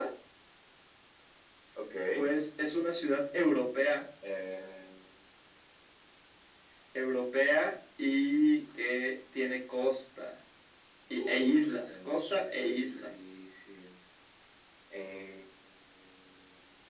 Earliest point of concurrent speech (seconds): 11 s

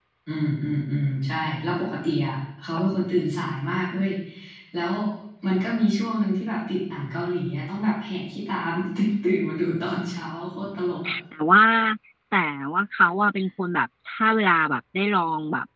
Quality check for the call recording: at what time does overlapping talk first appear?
none

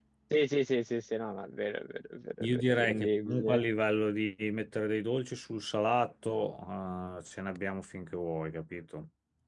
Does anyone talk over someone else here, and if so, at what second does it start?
2 s

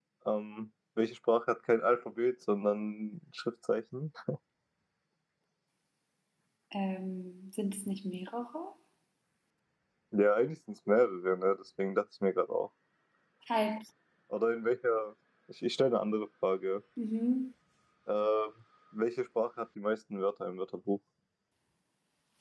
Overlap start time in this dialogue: none

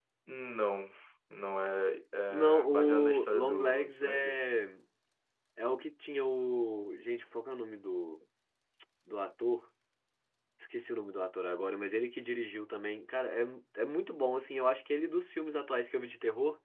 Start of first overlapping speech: 2 s

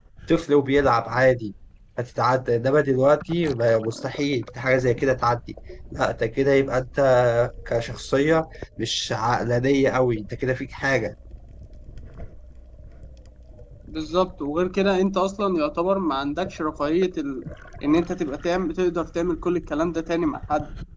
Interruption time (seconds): none

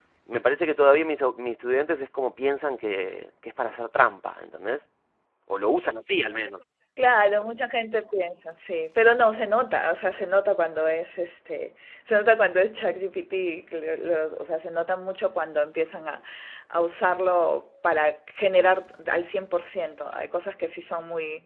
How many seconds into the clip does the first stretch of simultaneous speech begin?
none

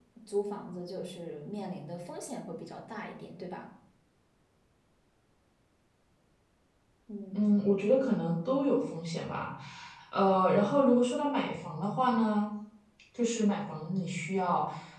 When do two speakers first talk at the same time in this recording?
none

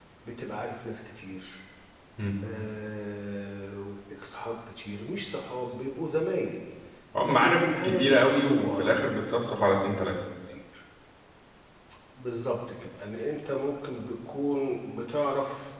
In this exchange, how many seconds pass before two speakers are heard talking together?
7 s

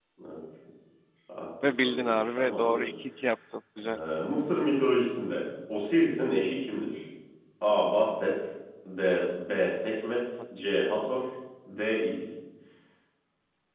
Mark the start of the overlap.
2 s

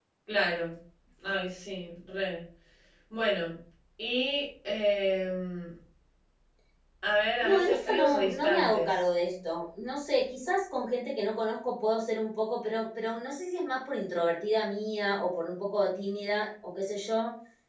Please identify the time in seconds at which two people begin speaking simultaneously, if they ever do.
7 s

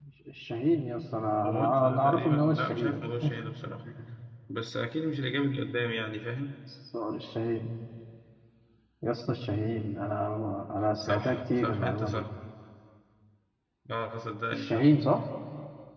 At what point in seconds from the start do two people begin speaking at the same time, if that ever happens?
1 s

